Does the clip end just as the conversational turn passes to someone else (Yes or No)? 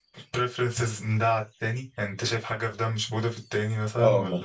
Yes